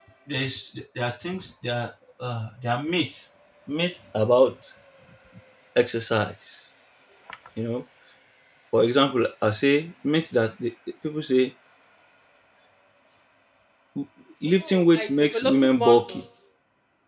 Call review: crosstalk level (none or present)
present